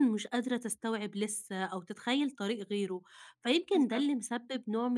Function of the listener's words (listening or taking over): listening